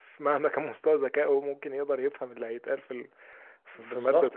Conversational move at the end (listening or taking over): taking over